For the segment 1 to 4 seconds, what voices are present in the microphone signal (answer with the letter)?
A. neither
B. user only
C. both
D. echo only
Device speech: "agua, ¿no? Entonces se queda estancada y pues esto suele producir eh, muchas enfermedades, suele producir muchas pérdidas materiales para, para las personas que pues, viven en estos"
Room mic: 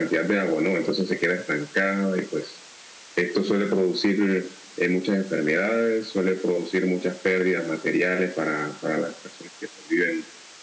D